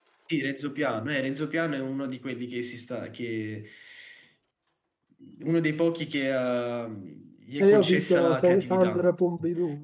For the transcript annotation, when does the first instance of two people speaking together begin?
7.6 s

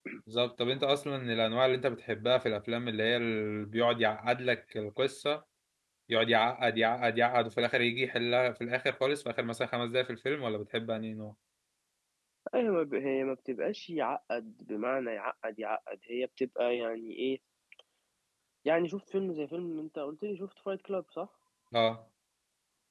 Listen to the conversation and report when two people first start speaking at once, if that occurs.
none

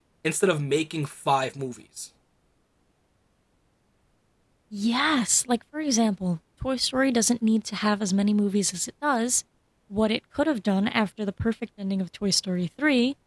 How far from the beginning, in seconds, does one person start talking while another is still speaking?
none

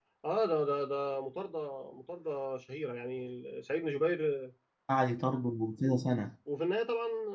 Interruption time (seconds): none

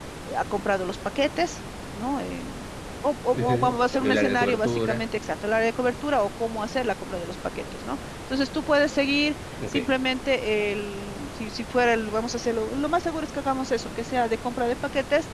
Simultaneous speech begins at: 3.3 s

